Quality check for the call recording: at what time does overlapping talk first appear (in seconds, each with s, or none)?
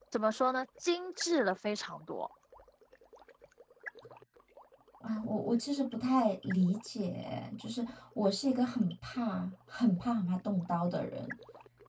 none